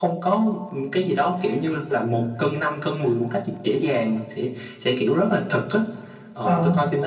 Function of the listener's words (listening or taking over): listening